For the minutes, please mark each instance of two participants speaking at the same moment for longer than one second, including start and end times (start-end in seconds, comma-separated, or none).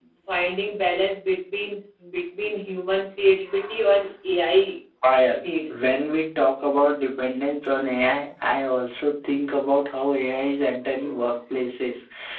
none